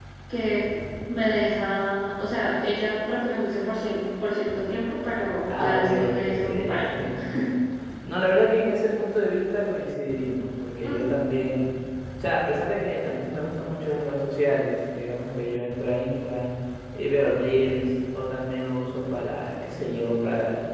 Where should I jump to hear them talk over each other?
5.5 s

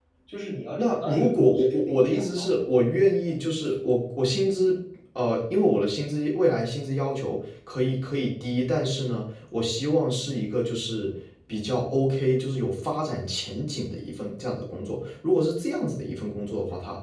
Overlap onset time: 0.8 s

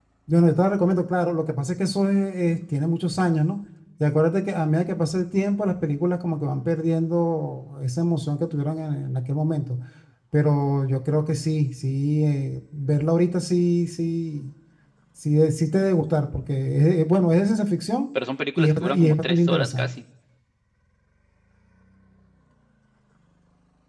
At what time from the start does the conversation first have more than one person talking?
18.6 s

